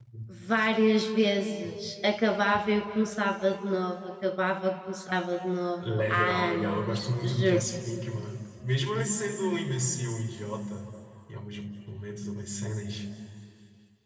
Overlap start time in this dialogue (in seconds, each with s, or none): 6.1 s